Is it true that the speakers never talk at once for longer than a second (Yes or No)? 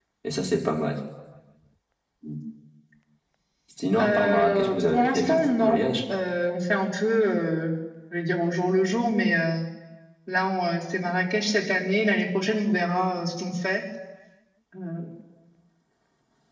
No